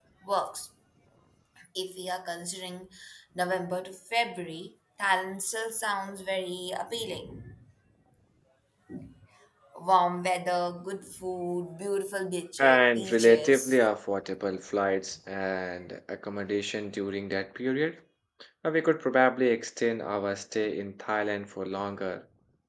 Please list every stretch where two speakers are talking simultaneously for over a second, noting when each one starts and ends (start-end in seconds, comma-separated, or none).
12.6-13.8